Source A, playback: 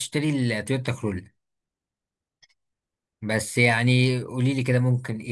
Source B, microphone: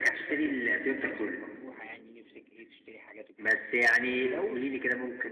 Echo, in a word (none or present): present